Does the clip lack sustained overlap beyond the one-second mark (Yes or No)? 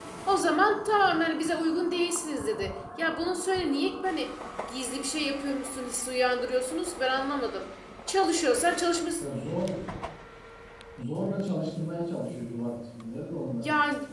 Yes